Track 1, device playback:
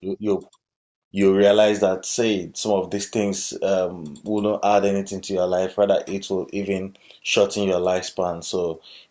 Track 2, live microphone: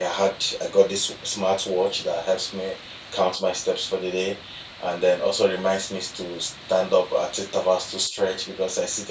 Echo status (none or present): none